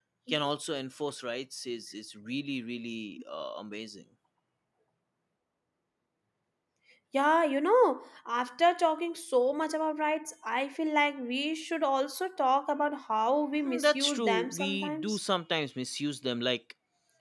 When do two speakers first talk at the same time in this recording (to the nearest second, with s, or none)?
14 s